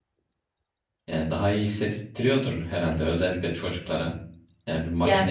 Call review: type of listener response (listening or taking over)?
listening